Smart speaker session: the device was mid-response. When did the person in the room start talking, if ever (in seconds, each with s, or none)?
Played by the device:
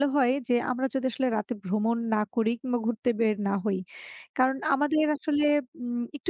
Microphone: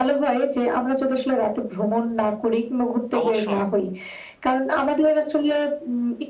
3.2 s